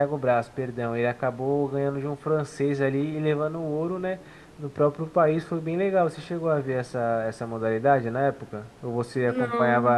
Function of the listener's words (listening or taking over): listening